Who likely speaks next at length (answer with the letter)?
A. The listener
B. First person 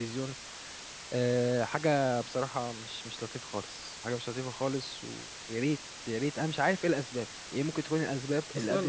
A